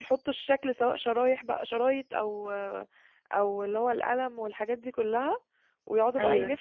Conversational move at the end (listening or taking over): listening